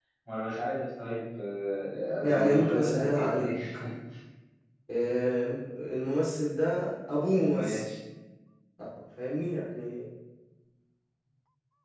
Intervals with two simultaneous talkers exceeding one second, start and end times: 2.2-3.5

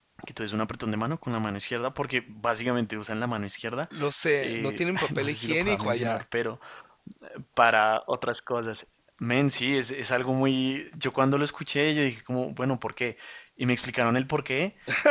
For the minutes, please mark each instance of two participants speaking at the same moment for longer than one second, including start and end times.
4.4-6.2

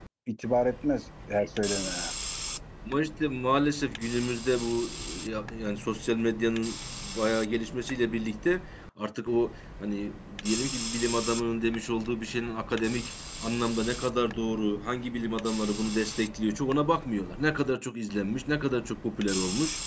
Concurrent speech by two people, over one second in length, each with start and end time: none

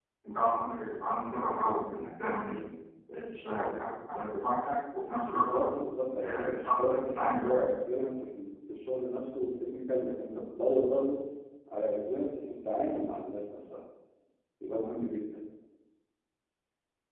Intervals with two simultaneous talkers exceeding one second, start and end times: 6.2-7.9

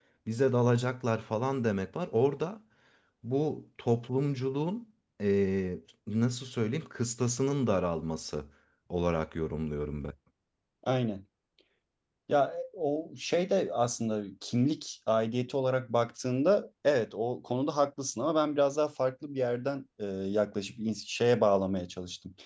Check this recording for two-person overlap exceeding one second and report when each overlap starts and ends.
none

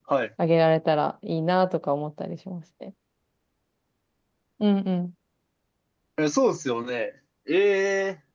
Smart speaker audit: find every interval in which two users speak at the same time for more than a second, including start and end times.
none

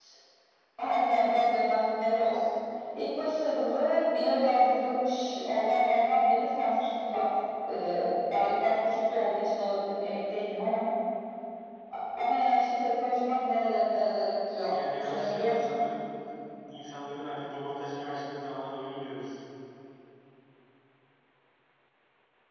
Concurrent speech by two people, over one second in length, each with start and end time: 14.6-15.8

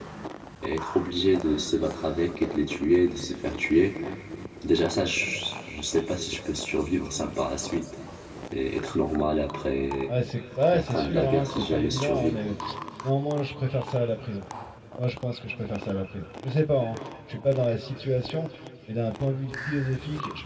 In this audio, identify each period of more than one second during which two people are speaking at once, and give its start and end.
10.7-12.4

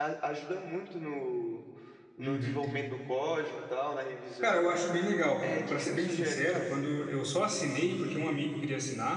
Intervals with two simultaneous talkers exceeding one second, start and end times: 5.4-6.7

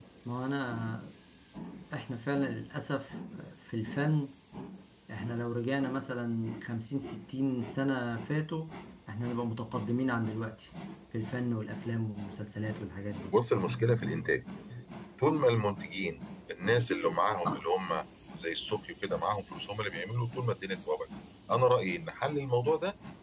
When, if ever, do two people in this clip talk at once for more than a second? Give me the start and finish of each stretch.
none

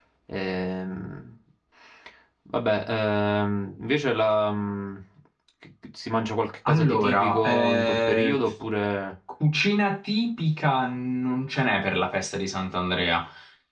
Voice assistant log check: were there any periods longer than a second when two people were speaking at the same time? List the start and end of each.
6.7-8.4

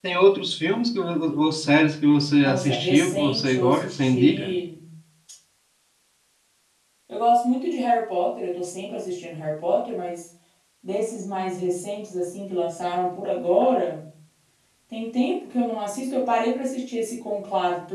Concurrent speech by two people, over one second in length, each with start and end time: 2.4-4.5

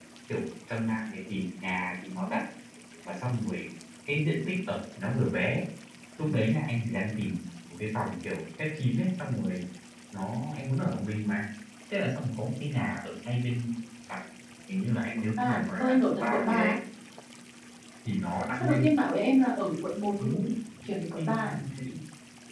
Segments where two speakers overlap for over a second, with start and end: 15.4-16.7

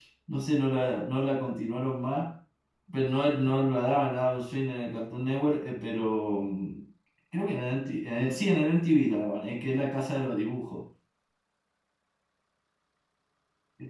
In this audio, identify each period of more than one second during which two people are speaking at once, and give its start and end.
none

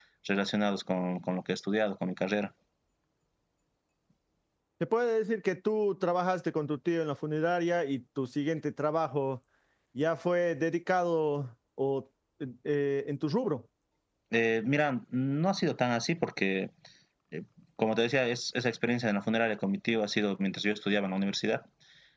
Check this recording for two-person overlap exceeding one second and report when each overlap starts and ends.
none

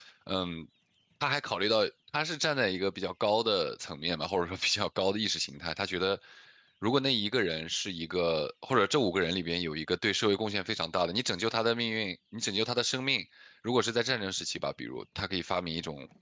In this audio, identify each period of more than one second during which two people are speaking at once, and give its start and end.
none

